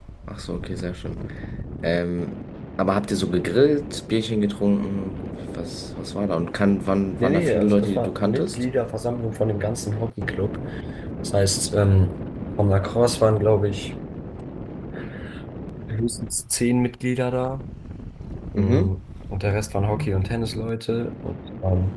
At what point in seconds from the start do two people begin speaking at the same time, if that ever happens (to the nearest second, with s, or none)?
7 s